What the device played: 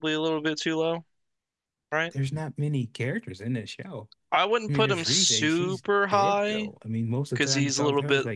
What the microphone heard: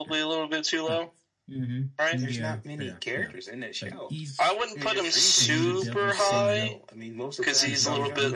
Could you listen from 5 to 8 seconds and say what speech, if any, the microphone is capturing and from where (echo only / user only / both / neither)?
both